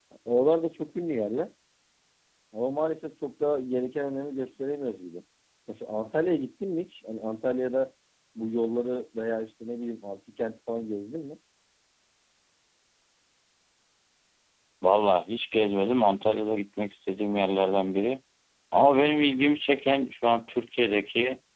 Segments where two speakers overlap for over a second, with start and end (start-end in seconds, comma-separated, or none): none